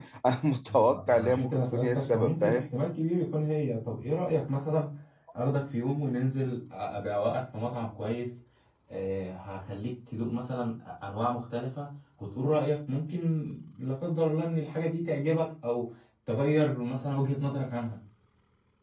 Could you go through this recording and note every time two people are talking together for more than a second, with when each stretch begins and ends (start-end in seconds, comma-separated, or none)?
0.7-2.6